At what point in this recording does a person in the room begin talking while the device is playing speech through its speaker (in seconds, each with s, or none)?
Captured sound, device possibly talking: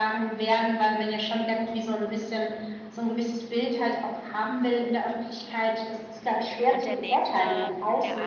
6.6 s